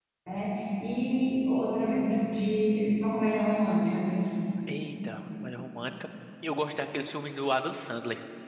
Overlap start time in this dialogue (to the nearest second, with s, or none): none